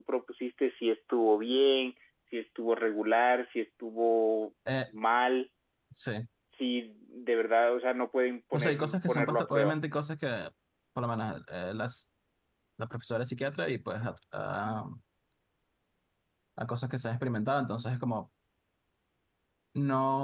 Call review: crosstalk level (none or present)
present